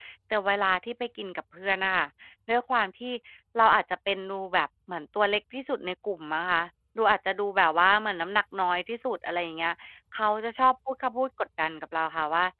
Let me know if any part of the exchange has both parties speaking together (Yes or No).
No